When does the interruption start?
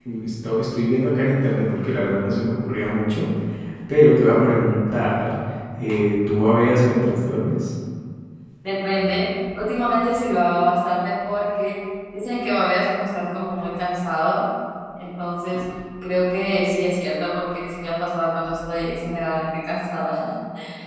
none

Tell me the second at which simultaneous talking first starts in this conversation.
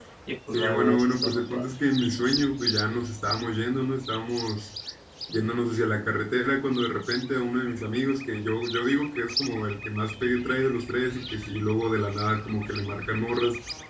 0.5 s

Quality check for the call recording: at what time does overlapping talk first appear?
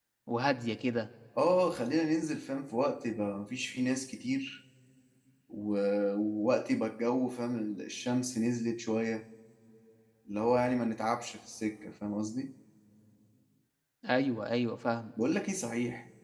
none

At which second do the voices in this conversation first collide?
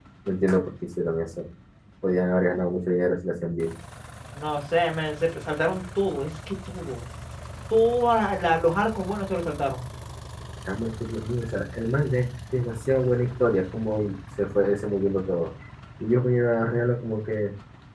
none

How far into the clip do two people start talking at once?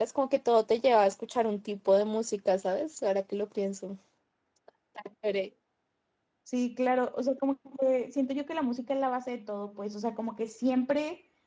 none

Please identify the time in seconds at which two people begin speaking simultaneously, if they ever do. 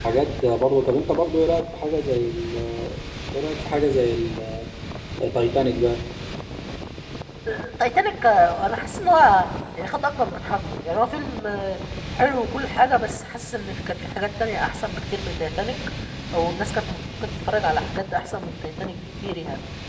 none

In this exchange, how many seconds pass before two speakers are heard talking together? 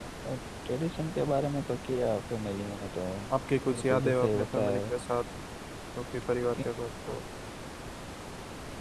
3.7 s

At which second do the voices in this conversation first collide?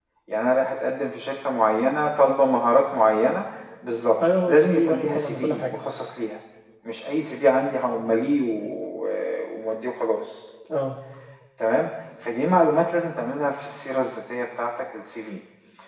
4.5 s

